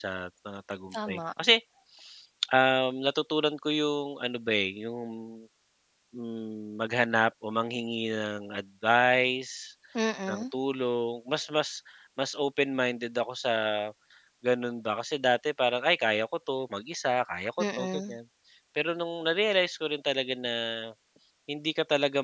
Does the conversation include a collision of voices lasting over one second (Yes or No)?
No